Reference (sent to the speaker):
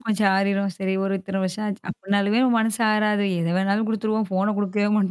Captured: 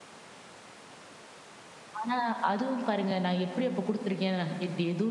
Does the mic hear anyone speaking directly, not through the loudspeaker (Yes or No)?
Yes